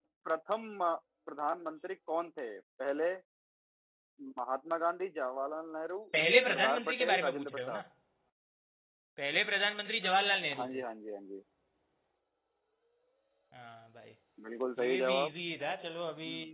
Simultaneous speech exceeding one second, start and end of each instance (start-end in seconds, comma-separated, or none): 6.5-7.8